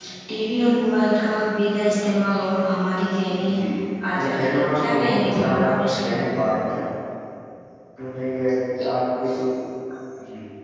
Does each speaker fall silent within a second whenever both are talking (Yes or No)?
No